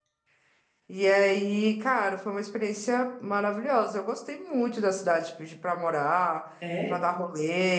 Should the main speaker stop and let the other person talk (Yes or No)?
No